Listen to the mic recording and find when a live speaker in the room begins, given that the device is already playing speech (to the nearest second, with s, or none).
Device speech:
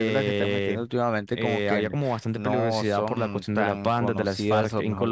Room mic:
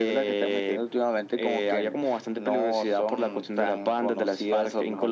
none